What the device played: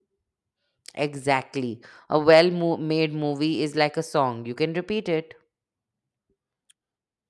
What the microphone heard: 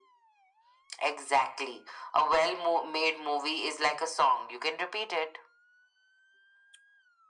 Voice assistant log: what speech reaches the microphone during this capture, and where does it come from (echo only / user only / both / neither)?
echo only